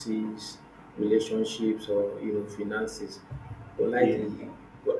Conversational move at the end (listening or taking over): listening